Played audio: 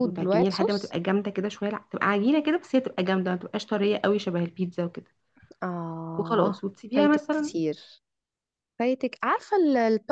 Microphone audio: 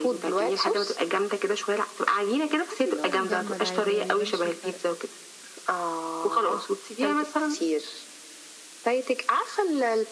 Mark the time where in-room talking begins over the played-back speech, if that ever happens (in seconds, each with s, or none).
2.7 s